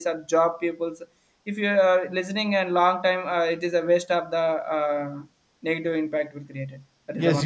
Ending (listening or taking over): taking over